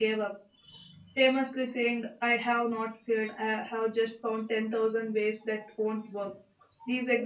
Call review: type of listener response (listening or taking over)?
listening